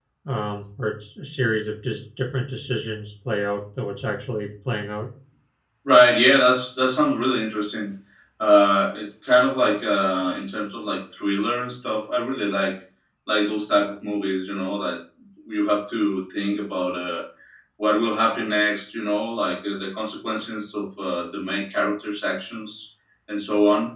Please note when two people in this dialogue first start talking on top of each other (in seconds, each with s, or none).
none